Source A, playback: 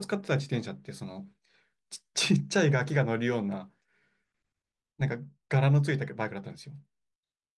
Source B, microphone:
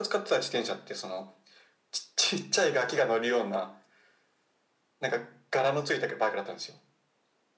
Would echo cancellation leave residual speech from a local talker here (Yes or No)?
No